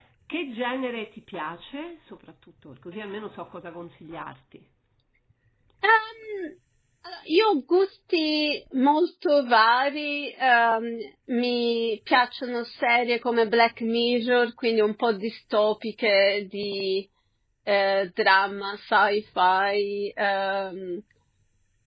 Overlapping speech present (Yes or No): No